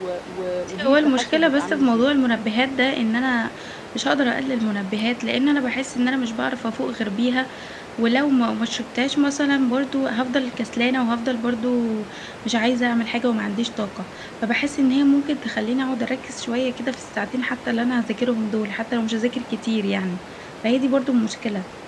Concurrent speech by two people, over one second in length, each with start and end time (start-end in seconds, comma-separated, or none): 0.8-2.1